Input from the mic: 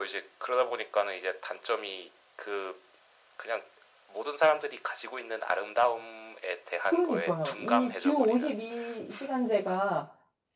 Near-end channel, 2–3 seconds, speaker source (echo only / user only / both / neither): echo only